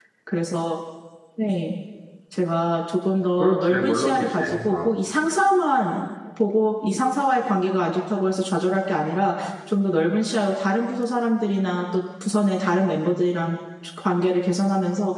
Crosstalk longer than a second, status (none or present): present